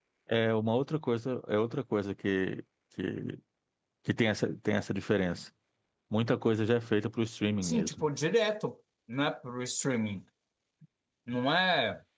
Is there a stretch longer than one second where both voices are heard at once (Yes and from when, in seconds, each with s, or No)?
No